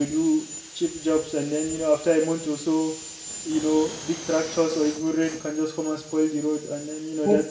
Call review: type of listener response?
taking over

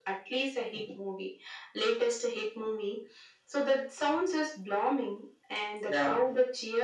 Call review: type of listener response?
listening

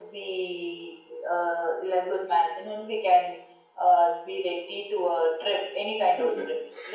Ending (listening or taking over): taking over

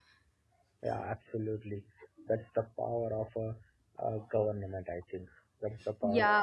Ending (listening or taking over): taking over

